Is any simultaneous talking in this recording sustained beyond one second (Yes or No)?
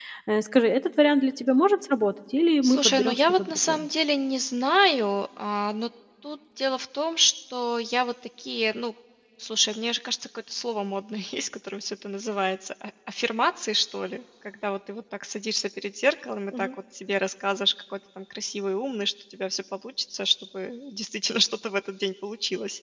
Yes